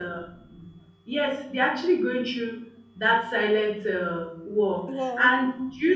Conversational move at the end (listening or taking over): listening